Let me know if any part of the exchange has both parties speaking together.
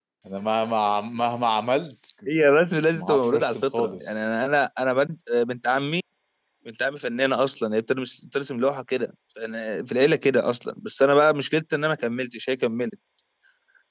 Yes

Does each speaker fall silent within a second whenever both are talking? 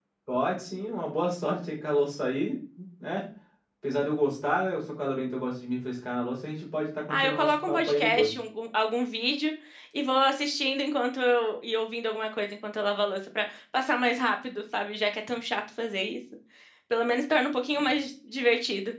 No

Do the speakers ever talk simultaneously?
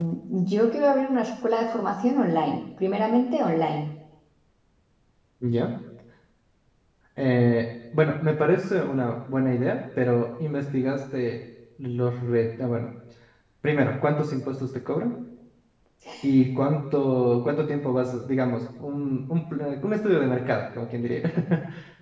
No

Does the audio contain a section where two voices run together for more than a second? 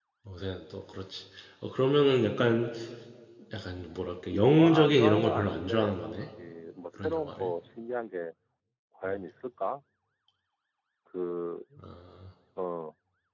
Yes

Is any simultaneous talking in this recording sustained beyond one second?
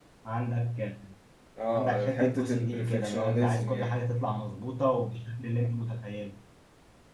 Yes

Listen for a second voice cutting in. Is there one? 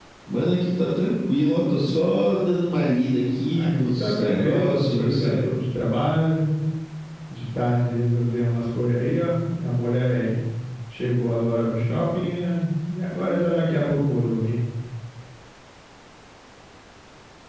Yes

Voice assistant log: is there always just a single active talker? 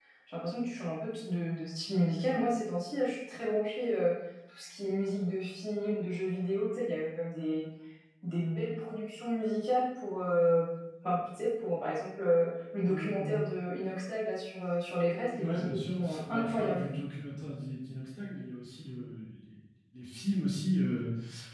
No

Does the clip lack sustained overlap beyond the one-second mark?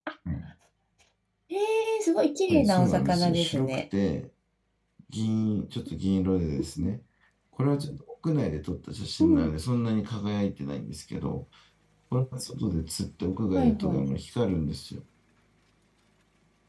No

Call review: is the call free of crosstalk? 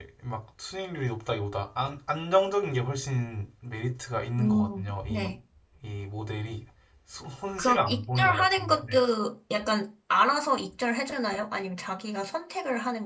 No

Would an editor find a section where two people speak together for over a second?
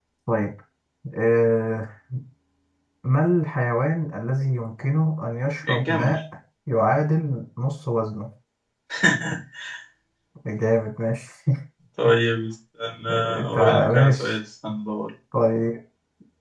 Yes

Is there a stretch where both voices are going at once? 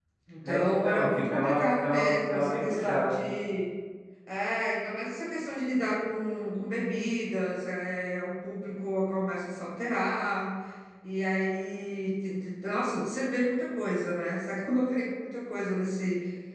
Yes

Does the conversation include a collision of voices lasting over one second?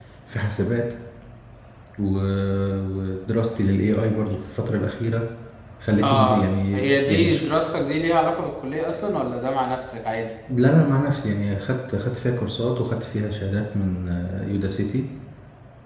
Yes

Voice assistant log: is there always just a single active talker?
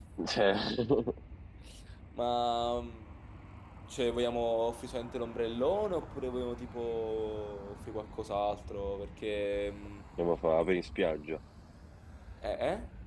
Yes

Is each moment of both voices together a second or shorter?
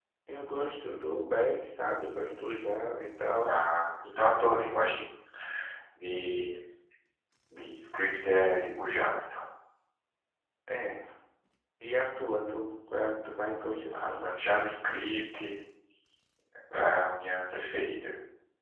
Yes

